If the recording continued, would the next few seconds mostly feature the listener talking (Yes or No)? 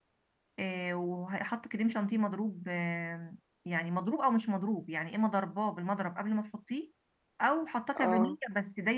No